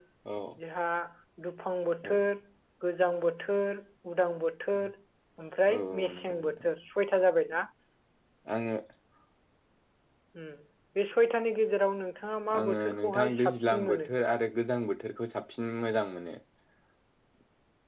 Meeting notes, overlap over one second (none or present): present